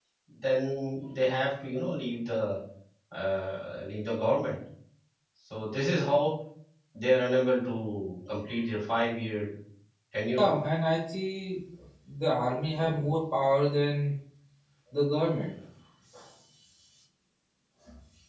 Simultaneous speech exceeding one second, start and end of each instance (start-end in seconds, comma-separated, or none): none